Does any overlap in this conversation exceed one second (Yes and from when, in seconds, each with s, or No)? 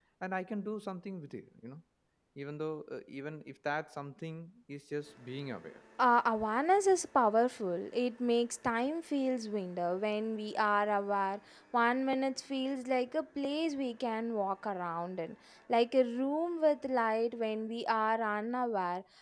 No